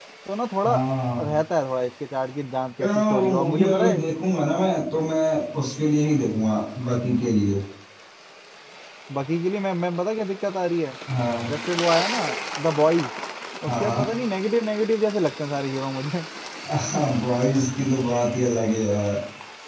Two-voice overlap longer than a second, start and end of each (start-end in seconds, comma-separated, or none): 2.8-4.0